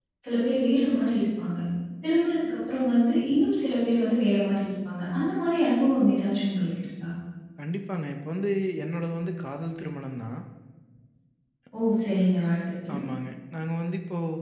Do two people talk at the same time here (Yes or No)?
No